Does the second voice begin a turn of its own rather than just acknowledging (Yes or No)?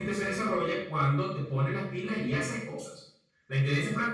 No